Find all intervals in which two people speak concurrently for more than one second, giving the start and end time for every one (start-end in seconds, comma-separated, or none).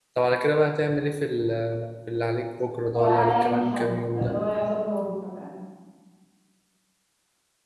3.0-4.3